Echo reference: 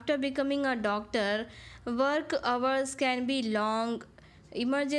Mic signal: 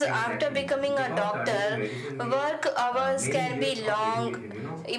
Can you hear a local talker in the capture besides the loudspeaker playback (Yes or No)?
Yes